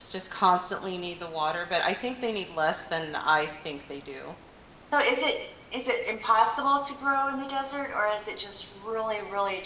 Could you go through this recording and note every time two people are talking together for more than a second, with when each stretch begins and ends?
none

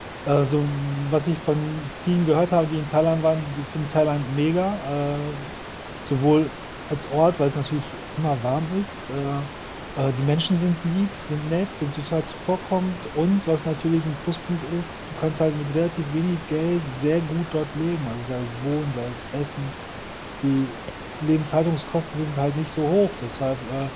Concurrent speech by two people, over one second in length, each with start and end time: none

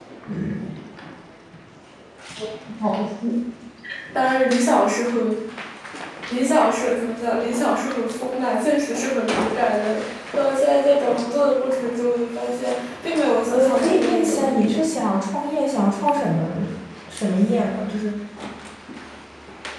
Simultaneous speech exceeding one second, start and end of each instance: 13.4-14.8

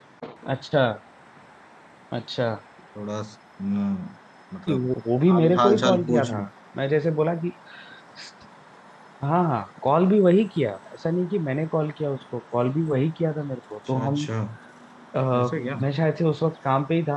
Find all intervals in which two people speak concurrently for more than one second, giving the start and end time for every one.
5.3-6.5

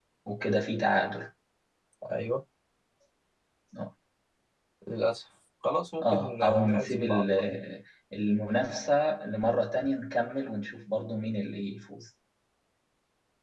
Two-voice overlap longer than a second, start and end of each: 6.0-7.4

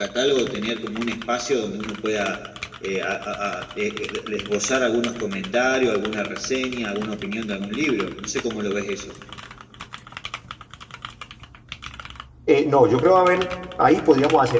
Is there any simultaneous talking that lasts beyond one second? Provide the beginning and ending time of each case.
none

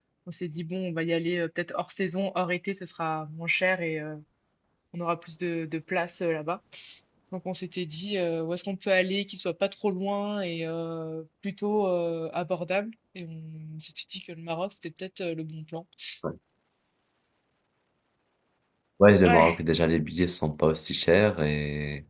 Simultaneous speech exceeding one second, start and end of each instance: none

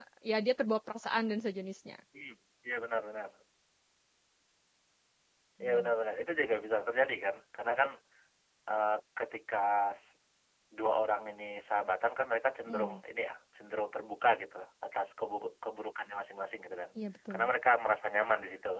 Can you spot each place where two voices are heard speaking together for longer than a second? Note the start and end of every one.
none

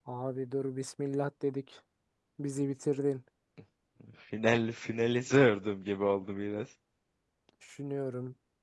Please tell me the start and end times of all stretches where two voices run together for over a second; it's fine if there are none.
none

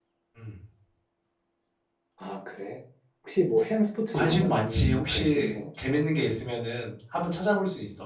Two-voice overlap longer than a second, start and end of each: 4.1-6.0

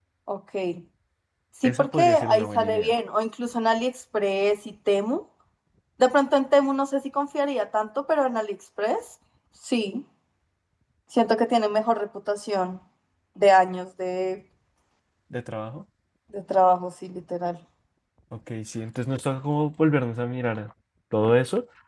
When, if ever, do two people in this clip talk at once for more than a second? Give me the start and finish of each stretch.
1.6-2.9

